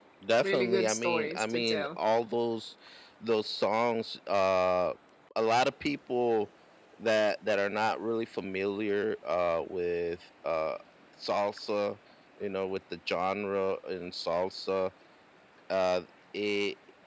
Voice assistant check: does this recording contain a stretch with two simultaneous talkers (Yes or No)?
Yes